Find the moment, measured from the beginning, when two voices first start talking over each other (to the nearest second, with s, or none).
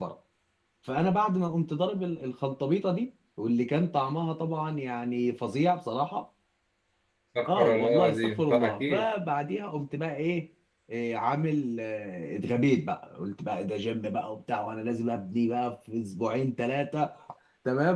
7 s